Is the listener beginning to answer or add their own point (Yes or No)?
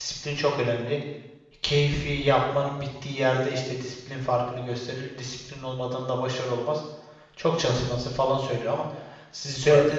No